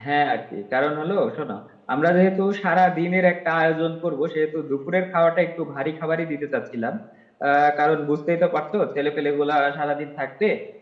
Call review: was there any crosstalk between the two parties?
No

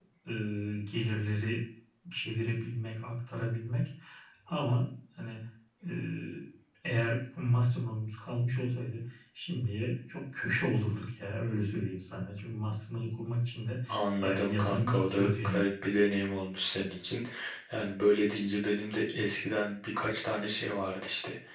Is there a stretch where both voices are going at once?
Yes, from 14.2 s

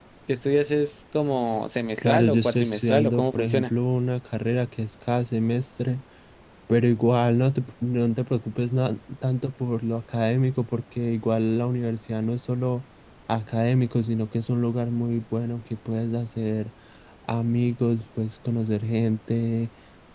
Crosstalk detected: Yes, from 2.0 s

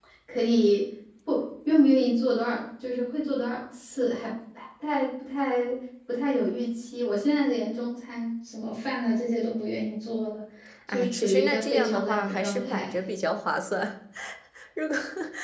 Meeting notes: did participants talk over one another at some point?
Yes, from 10.9 s

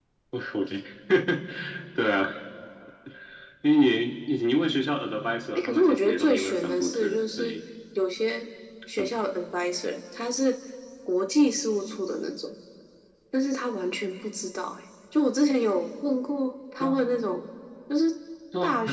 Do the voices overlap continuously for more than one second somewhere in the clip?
Yes, from 5.5 s

